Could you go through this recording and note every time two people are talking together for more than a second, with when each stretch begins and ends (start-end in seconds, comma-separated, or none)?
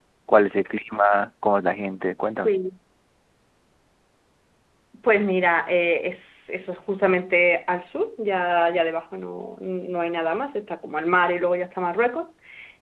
none